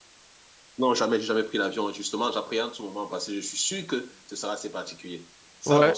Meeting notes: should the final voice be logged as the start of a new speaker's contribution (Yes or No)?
Yes